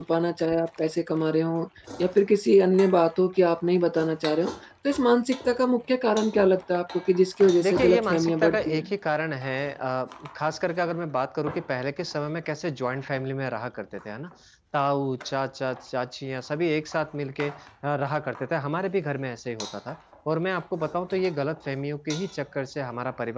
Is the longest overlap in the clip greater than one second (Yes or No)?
Yes